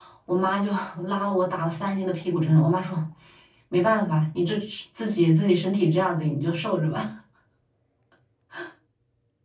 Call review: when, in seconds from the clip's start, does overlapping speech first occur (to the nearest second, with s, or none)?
none